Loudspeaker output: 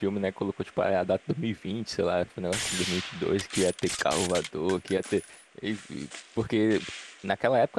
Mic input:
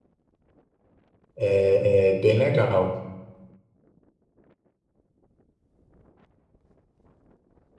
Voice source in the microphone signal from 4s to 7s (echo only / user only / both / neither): neither